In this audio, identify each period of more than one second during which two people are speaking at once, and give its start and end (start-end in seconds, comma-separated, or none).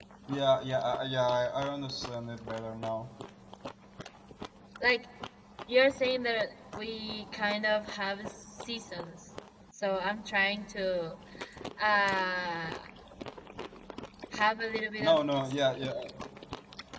none